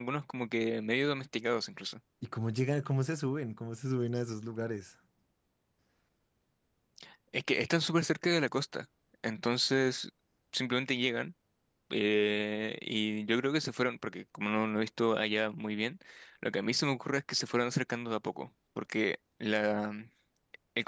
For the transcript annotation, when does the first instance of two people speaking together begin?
none

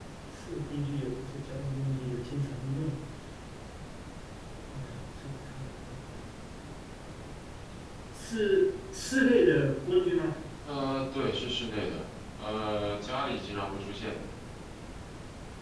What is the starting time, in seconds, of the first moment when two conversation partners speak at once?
none

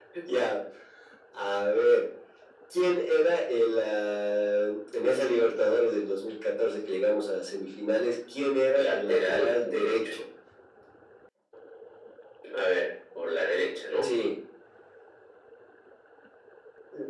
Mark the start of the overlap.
9 s

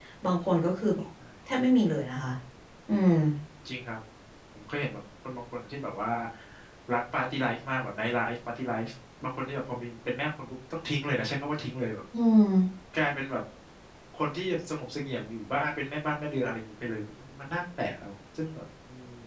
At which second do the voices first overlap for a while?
none

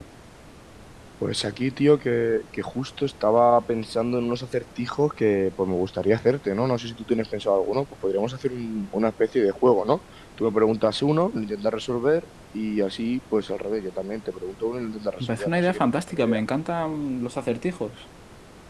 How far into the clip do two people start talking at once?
15 s

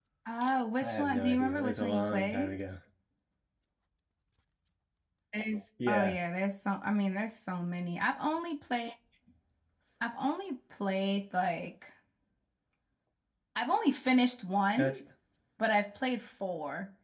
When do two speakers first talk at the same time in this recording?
1 s

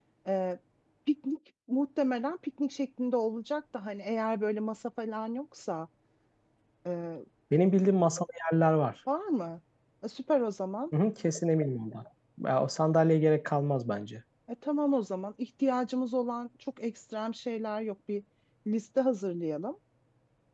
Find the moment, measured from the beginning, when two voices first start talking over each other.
none

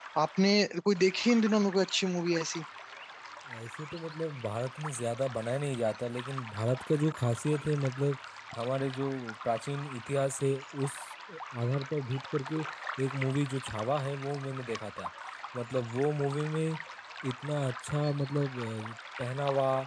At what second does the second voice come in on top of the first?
none

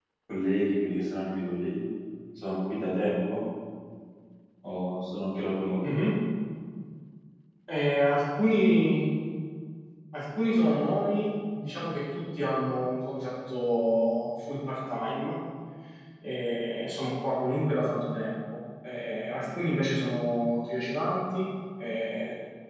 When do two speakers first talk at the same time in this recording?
none

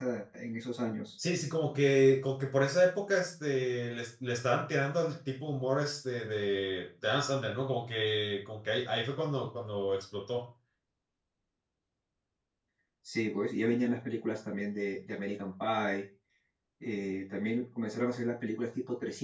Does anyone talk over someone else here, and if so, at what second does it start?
none

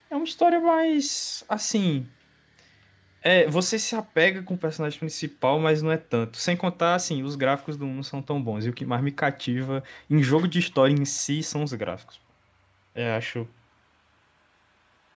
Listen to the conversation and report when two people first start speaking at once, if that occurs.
none

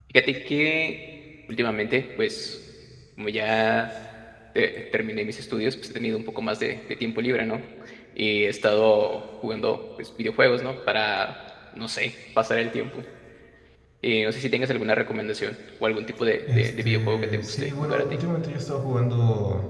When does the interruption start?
16 s

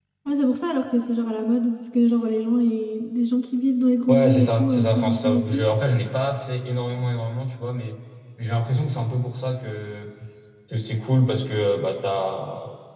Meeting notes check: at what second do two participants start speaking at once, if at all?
4 s

